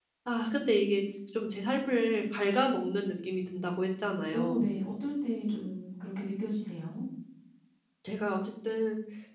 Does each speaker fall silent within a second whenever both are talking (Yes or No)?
Yes